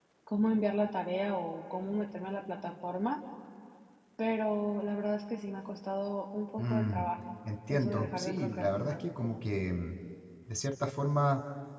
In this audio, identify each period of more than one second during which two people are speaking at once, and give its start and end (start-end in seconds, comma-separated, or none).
7.7-8.9